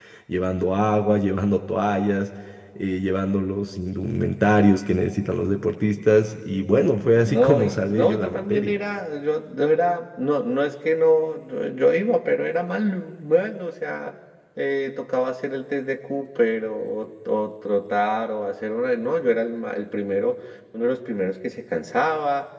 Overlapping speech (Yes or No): Yes